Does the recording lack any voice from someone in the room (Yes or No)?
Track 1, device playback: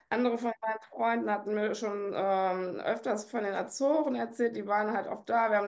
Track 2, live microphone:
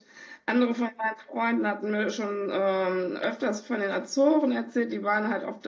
Yes